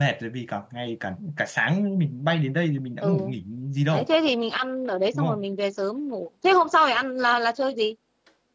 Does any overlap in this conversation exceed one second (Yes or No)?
No